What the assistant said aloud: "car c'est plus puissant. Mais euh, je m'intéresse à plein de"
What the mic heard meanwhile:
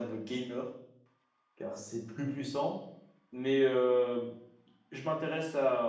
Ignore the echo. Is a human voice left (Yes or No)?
No